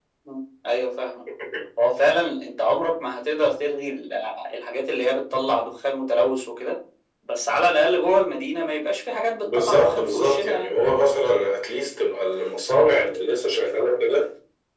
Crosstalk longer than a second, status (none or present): present